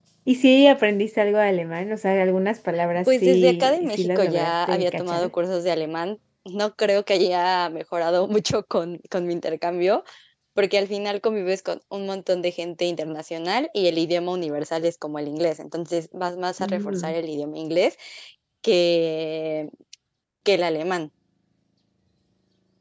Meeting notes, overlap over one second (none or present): present